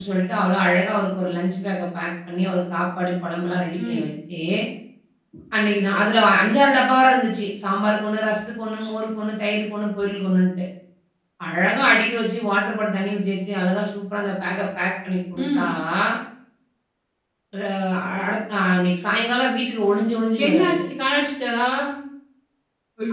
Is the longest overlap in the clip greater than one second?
No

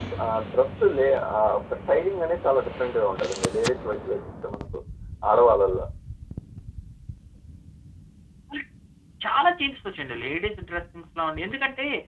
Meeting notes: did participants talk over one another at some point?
No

